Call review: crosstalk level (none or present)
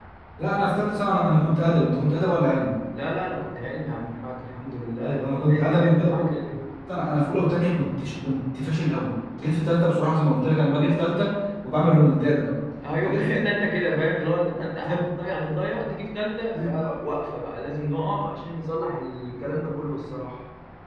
present